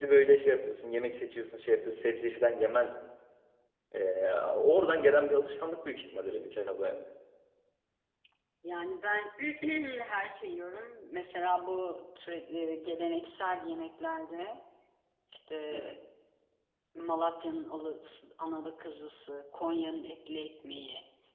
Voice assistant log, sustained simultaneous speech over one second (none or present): none